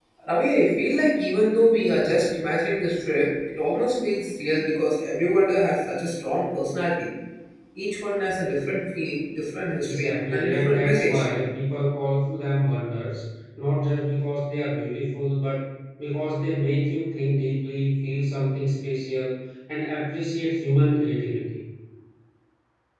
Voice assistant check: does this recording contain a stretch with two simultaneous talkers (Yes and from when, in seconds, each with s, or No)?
Yes, from 9.8 s